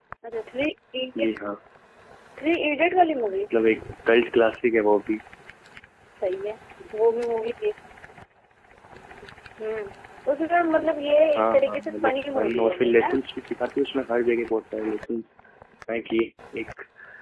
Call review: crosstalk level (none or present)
present